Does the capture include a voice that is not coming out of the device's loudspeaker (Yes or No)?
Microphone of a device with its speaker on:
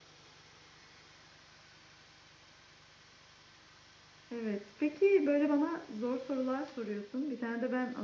Yes